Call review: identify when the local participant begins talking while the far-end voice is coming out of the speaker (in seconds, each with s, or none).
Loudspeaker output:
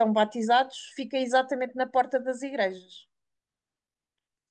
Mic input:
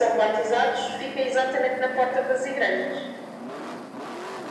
none